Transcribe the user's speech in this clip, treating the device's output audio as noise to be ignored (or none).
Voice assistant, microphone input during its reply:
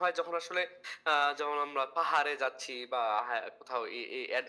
none